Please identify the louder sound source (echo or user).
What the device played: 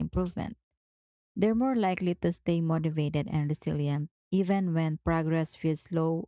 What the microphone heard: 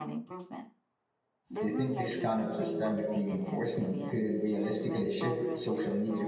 user